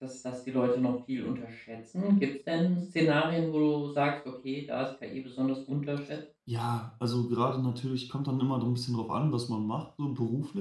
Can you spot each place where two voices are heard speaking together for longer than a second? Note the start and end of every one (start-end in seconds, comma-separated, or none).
none